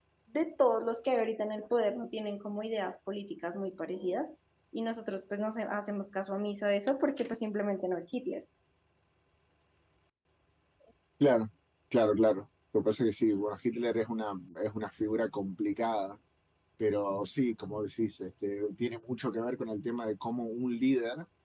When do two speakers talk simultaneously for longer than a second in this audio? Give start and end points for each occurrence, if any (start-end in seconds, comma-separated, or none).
none